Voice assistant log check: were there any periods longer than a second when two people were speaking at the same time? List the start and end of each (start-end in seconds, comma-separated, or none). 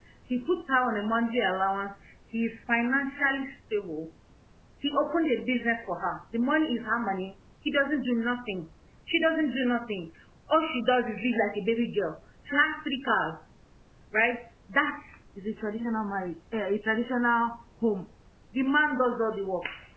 none